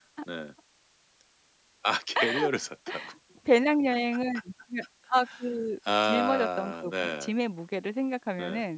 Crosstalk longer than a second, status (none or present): present